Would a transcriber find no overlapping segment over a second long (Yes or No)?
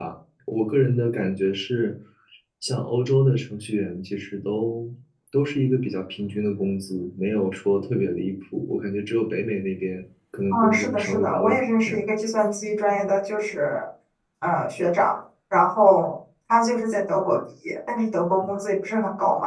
No